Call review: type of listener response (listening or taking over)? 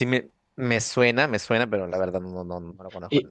taking over